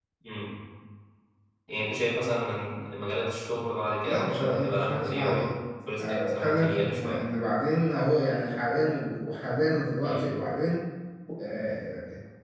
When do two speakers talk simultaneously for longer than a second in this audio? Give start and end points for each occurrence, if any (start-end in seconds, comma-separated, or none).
4.0-5.4, 6.0-7.2